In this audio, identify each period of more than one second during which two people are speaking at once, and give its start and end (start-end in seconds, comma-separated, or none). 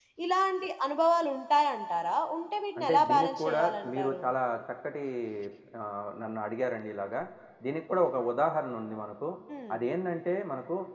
2.8-4.2